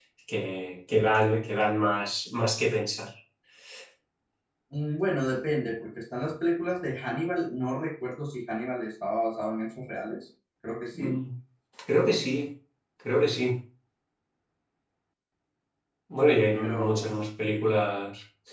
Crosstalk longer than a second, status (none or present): none